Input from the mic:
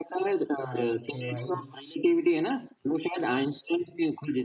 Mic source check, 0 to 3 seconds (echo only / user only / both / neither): both